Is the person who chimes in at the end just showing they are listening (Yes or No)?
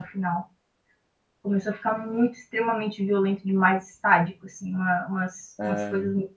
Yes